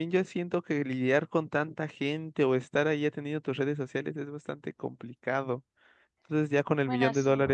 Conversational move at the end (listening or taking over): listening